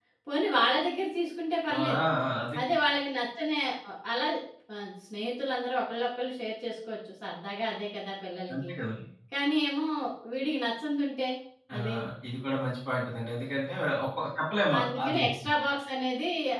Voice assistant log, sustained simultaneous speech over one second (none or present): none